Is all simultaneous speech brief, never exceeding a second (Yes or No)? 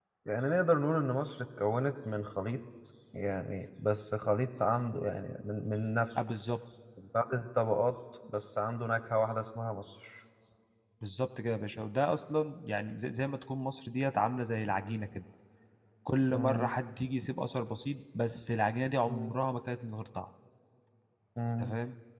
Yes